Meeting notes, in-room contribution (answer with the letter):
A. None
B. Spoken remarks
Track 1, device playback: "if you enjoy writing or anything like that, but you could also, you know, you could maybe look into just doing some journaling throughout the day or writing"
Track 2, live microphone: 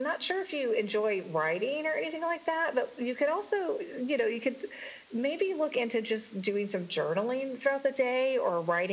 A